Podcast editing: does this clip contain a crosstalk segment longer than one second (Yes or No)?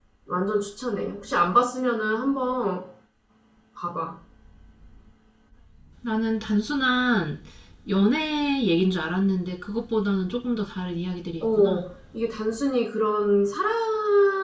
No